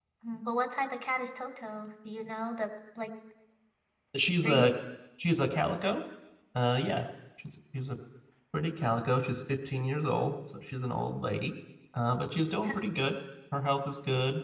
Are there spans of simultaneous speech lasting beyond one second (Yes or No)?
No